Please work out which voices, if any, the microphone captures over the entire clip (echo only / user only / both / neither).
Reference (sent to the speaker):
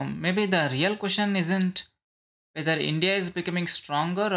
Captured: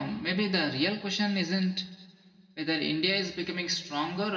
echo only